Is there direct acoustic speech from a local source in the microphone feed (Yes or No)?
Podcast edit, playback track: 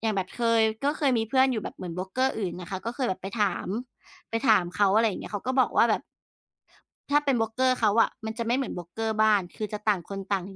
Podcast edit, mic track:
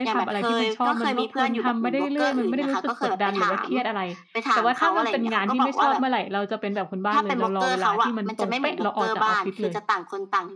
Yes